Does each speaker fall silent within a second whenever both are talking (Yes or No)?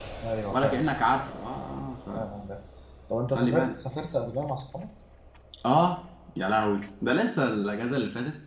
Yes